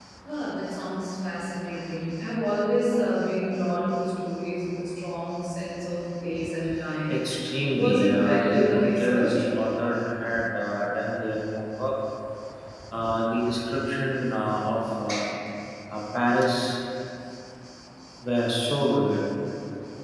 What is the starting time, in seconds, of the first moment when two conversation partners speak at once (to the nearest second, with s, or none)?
8 s